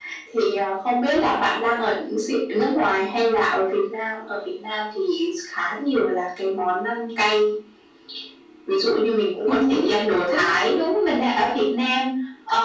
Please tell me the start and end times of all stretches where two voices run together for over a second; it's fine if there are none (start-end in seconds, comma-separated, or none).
none